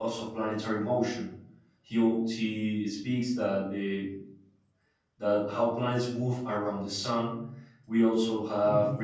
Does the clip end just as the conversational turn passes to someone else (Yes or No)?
No